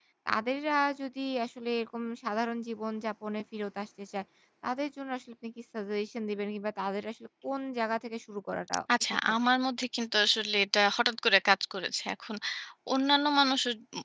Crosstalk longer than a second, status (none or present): none